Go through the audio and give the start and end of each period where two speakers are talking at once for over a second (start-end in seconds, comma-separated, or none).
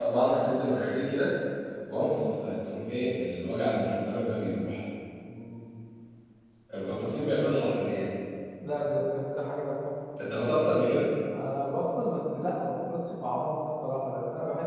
none